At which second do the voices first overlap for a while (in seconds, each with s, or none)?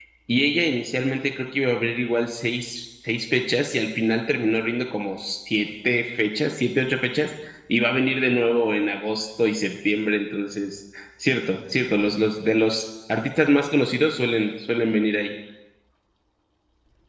none